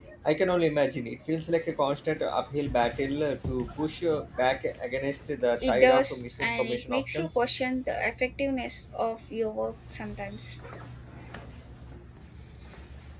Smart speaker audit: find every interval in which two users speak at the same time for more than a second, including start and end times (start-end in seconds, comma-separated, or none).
5.7-7.3